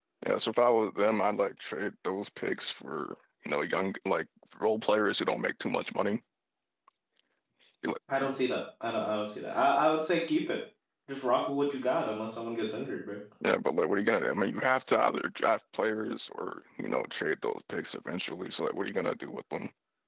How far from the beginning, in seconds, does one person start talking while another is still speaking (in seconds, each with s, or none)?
none